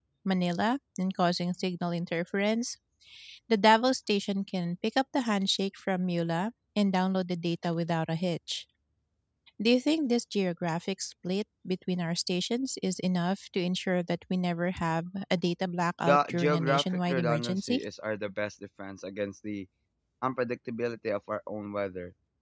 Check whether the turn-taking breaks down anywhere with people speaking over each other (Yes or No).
Yes